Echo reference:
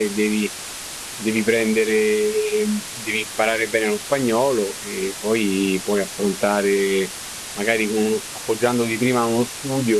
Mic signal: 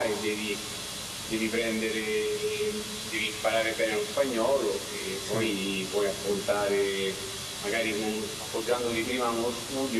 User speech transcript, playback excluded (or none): Sì.